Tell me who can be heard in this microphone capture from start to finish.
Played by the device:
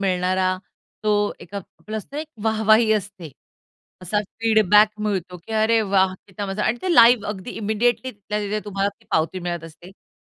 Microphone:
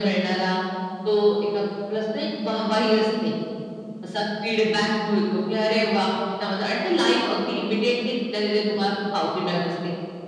echo only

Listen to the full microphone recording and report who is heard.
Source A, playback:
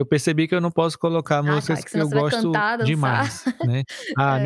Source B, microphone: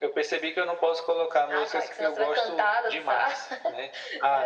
echo only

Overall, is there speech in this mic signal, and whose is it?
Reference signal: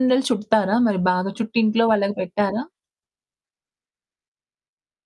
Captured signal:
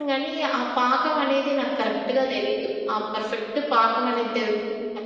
user only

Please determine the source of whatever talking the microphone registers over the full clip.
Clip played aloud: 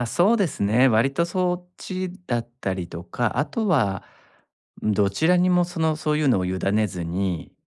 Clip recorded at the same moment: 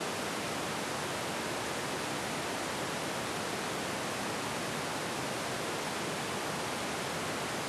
neither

